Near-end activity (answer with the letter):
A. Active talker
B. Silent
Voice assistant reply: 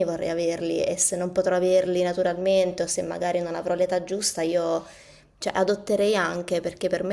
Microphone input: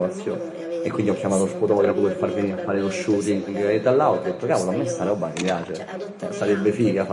A